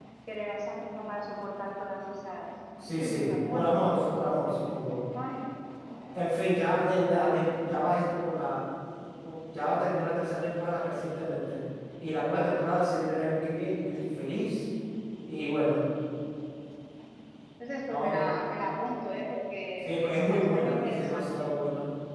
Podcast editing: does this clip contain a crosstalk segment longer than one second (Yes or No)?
Yes